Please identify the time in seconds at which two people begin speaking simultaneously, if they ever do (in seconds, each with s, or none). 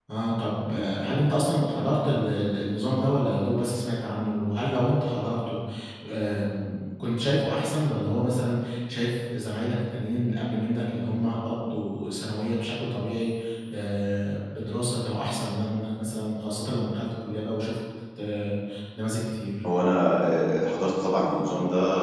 none